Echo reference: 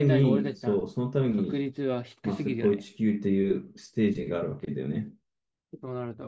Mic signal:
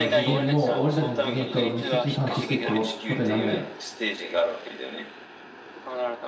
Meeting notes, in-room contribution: present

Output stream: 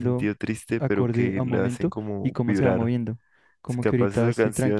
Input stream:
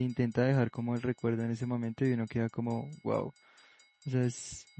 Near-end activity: present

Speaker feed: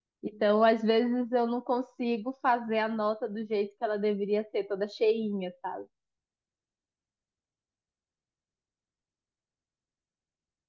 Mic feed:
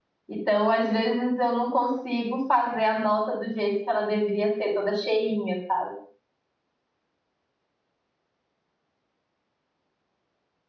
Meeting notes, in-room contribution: none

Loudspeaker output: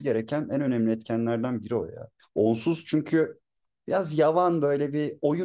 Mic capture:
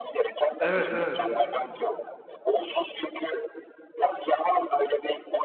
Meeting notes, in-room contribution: present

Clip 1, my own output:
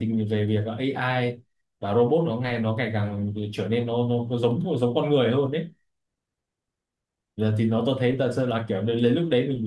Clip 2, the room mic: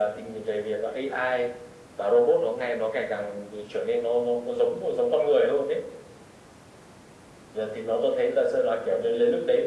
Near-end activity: none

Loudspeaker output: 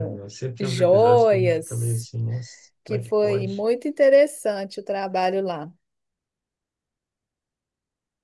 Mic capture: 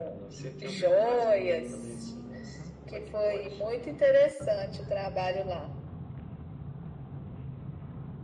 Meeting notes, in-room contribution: none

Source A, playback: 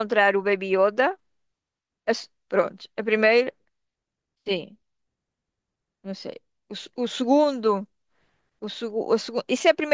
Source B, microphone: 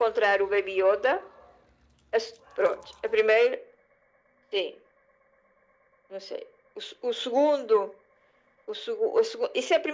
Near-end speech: none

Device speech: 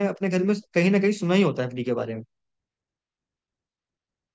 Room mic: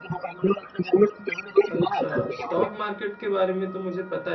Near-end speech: present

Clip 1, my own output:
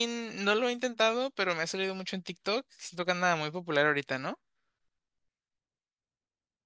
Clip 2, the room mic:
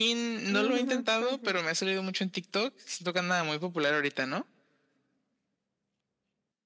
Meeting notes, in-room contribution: present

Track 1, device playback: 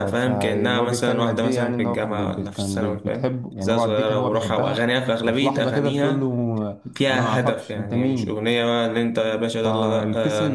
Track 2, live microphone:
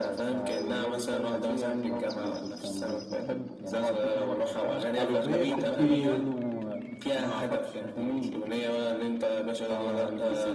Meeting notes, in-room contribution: present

